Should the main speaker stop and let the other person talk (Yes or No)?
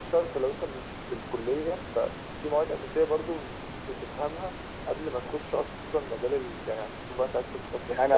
Yes